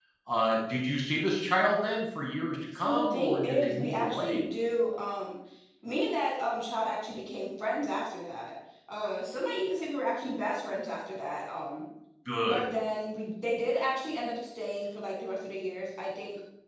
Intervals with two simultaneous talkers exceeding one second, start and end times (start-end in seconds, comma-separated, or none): 2.7-4.4